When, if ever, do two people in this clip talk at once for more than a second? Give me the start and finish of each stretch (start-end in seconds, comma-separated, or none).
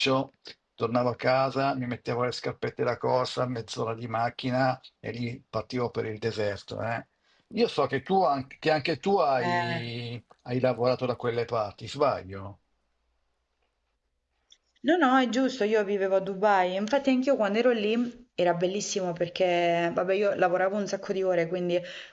none